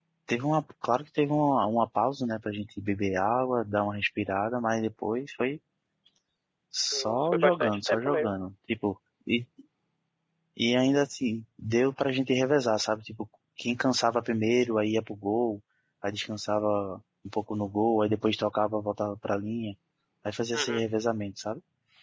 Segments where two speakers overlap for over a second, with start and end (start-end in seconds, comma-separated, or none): 6.9-8.3